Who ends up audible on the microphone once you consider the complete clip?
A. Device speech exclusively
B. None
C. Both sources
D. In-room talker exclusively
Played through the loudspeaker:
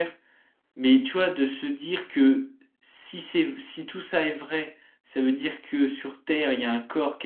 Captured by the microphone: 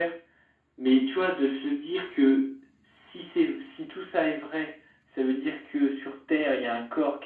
A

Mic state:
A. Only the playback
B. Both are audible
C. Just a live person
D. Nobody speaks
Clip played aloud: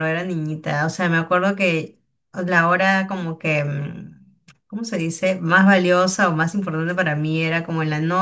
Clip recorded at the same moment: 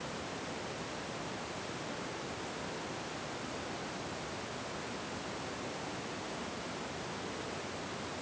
D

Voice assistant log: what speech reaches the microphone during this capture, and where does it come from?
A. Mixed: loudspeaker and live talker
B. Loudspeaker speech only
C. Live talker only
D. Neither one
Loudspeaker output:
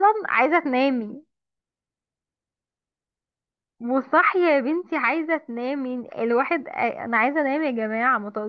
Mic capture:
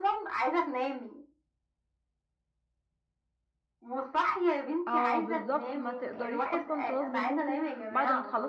A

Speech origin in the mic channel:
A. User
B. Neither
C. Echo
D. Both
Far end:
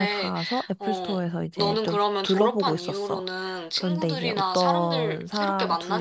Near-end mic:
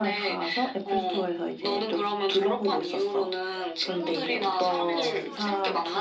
D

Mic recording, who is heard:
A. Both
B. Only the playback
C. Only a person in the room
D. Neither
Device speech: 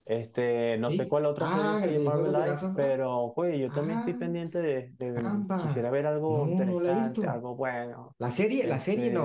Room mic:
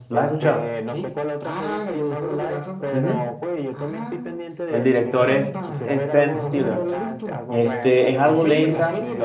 A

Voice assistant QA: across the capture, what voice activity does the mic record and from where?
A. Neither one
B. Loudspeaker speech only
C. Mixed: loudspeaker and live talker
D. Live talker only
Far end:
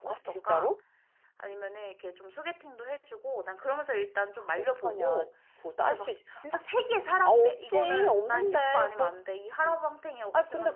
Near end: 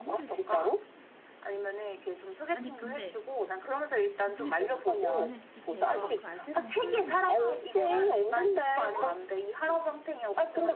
C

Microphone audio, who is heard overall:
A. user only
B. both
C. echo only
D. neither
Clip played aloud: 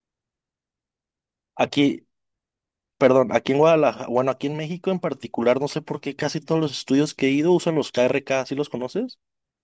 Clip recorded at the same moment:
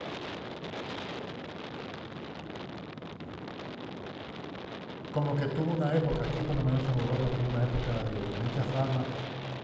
A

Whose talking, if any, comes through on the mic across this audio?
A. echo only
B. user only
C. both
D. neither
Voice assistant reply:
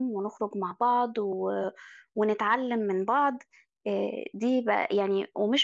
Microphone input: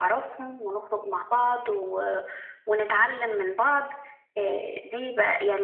A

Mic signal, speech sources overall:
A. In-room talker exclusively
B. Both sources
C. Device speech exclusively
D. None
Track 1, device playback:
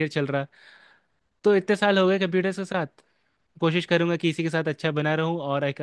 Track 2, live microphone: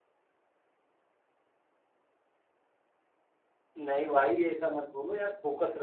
A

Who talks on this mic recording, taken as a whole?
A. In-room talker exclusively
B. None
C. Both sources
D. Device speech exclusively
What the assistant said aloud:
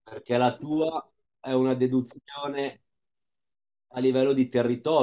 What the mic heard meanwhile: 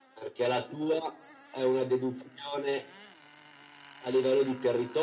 D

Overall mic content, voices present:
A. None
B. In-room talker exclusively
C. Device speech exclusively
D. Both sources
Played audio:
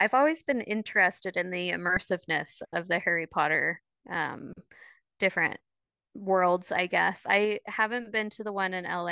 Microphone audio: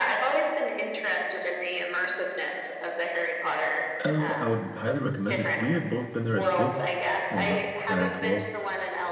D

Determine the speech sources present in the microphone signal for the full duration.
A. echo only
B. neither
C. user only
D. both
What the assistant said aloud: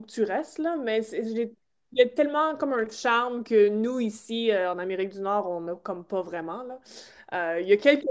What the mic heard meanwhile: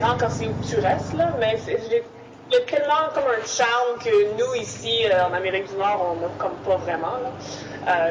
A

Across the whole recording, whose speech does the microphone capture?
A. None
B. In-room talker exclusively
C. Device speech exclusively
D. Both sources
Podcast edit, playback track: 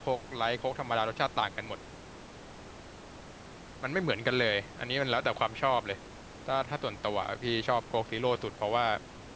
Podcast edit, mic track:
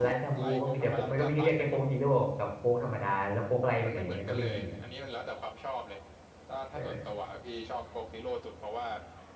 D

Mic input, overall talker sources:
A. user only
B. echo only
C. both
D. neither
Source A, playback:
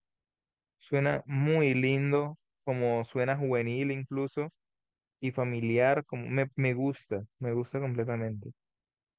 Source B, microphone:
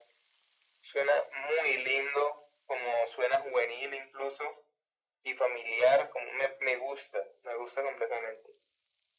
B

